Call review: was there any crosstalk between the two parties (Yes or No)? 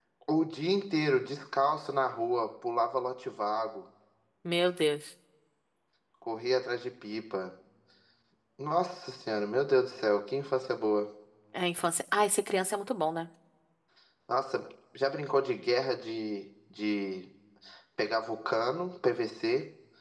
No